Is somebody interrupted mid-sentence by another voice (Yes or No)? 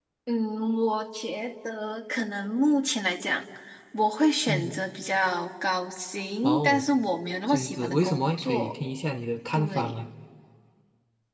Yes